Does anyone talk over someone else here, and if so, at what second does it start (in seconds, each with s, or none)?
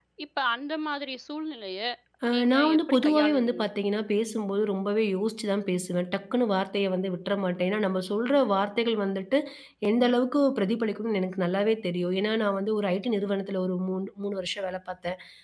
2.3 s